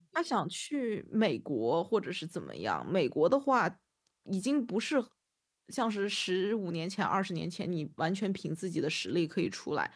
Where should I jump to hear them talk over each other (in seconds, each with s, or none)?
none